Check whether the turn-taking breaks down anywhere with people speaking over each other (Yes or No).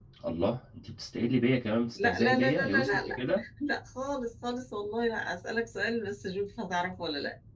Yes